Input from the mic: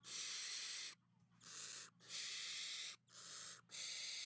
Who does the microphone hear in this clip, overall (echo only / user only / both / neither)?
neither